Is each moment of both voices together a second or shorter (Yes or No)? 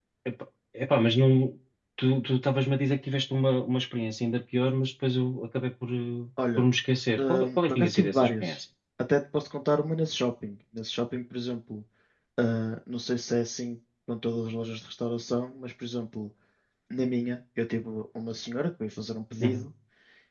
No